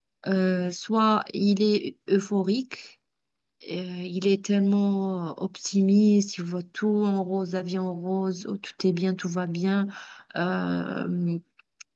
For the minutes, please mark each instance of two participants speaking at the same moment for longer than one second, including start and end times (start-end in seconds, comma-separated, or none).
none